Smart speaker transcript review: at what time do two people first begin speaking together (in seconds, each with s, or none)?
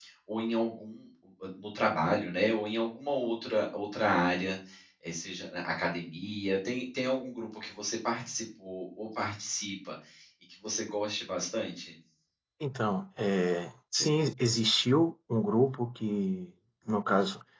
none